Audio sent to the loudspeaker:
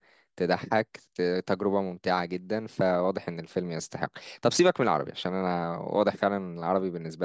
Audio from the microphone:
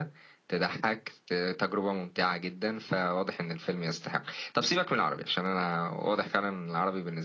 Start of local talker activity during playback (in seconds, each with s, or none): none